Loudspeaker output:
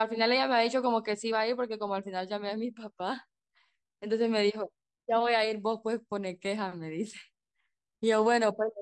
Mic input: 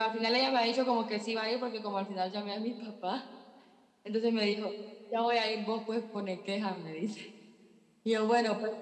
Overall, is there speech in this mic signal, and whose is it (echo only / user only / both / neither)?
echo only